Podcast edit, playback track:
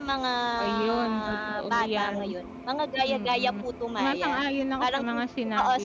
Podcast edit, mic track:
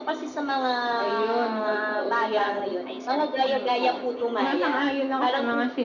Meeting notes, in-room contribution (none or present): present